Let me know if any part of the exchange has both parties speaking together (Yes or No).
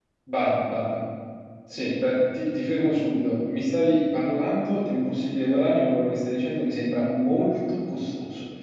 No